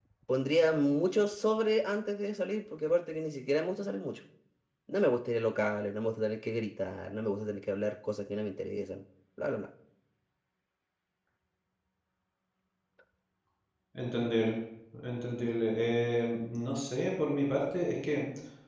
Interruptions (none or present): none